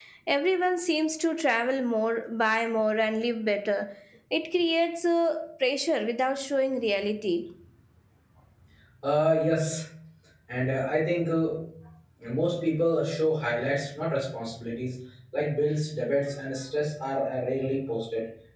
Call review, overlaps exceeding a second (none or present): none